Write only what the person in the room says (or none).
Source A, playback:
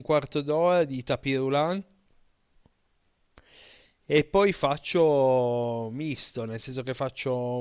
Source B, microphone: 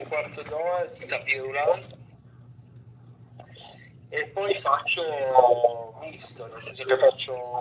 none